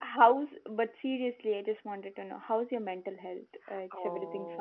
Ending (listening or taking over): taking over